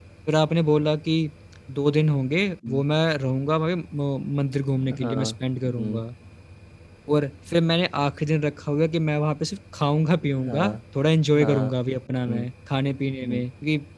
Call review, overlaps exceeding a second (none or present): none